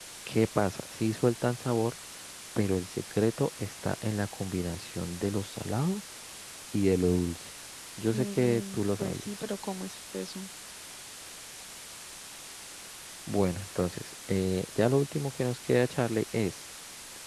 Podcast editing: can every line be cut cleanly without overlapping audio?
No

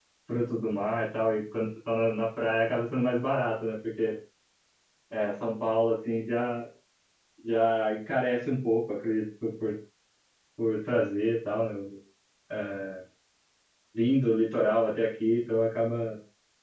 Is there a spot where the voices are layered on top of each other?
No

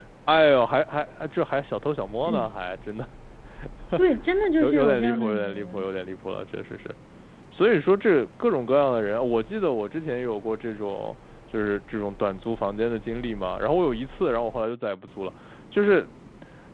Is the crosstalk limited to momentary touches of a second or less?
No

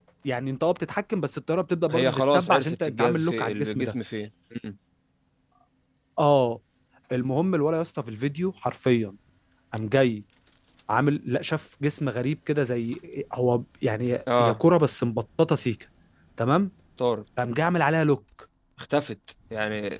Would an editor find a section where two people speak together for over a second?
Yes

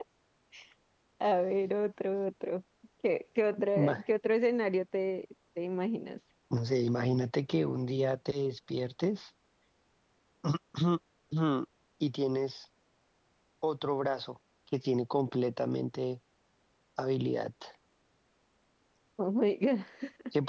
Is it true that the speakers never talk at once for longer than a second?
Yes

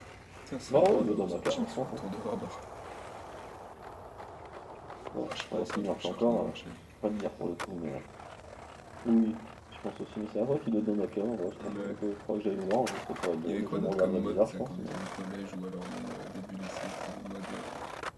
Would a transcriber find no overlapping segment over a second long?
No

